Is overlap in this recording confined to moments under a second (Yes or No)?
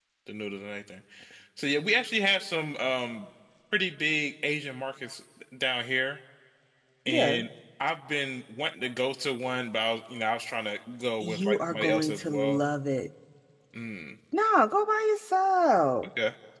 No